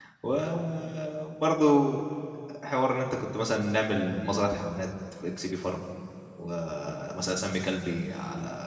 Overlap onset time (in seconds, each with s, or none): none